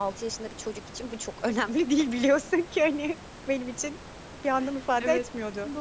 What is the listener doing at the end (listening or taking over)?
taking over